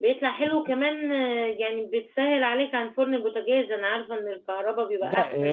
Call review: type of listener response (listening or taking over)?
taking over